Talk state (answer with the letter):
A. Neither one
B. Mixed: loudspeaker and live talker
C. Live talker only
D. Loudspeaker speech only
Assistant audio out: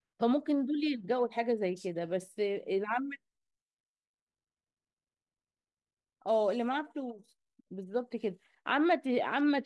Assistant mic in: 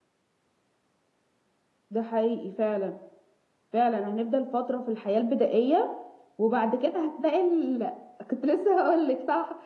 C